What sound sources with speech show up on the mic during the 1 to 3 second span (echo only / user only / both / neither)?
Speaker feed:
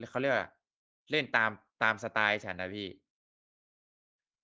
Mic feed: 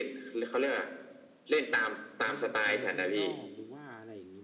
both